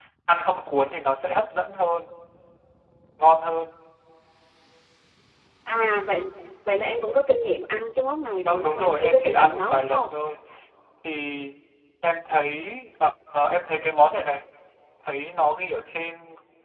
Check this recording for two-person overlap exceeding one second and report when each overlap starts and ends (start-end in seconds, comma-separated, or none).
8.4-10.1